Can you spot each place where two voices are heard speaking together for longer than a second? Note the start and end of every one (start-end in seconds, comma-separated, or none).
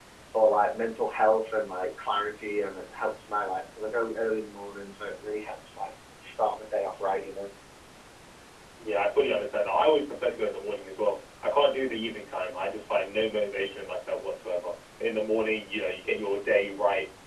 none